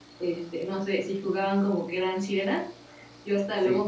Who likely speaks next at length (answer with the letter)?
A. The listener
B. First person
B